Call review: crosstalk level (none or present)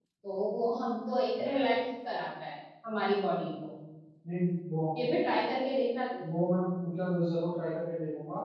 none